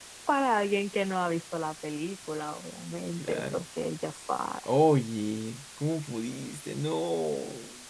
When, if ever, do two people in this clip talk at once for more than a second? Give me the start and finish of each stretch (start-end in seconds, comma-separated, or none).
none